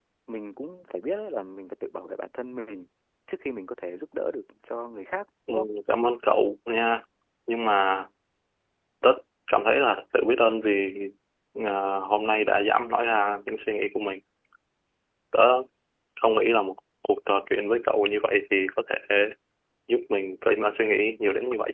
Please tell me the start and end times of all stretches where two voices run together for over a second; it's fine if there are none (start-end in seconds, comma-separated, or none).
none